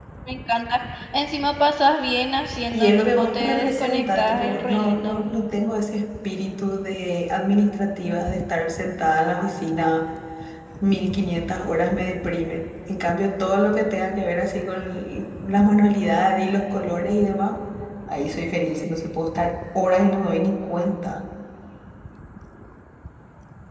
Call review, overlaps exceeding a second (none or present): present